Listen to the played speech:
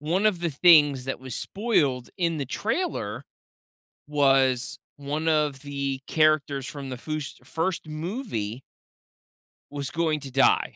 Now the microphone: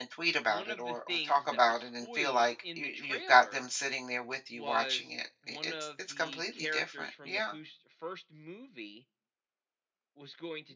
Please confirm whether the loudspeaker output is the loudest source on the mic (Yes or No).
No